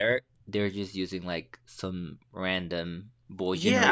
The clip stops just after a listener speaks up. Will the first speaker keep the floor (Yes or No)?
No